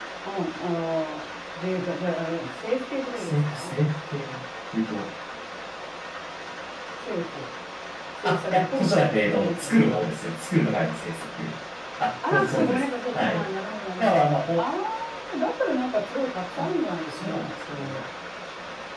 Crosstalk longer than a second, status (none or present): present